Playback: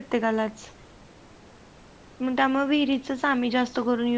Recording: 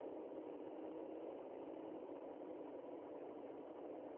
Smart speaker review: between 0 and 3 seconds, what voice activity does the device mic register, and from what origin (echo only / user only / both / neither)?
neither